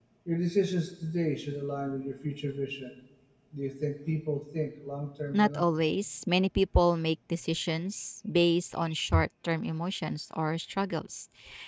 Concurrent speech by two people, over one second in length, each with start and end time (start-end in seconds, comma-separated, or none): none